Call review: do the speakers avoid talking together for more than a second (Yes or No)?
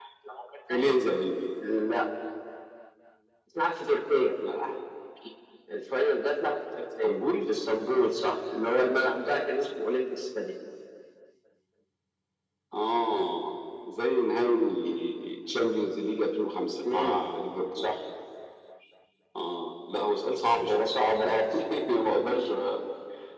Yes